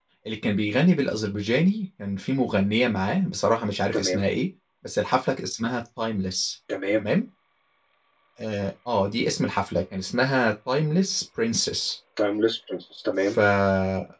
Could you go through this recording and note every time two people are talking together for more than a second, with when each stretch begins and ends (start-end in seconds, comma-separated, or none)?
none